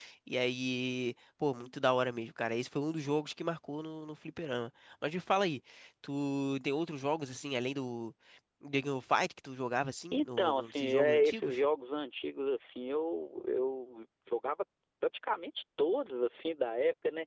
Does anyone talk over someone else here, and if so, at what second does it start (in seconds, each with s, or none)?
10.1 s